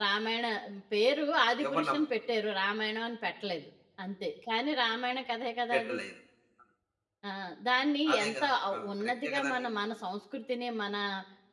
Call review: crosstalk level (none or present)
present